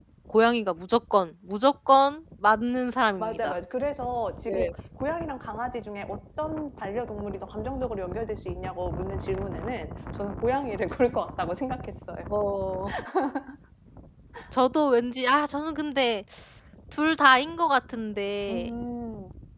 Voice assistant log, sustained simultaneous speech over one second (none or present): none